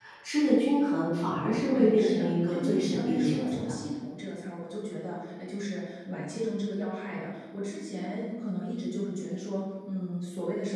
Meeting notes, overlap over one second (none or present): present